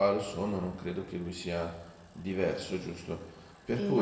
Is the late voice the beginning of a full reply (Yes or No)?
No